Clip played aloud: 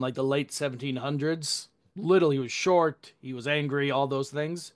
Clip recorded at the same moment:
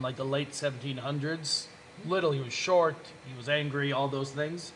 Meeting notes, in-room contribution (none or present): none